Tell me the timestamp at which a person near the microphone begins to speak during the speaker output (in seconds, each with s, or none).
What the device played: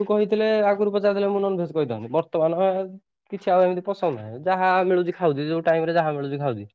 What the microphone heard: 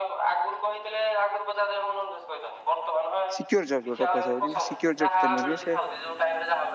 3.4 s